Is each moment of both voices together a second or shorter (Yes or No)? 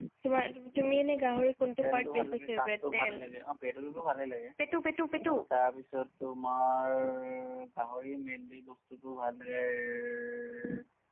No